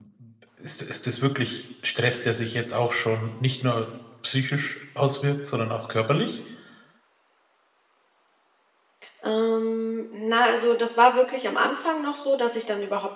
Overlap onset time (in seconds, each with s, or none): none